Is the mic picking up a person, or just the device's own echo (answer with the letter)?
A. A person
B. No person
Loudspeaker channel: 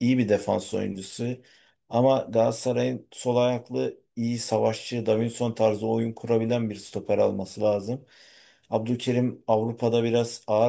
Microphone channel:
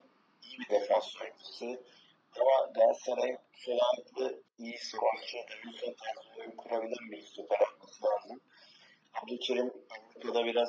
B